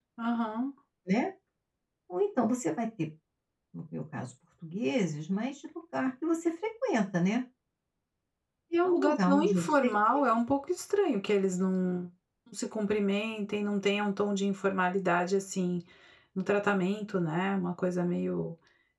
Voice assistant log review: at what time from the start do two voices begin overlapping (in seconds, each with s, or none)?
8.8 s